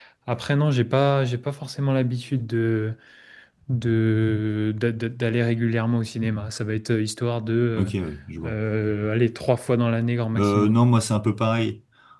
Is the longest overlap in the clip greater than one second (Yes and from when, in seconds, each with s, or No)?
No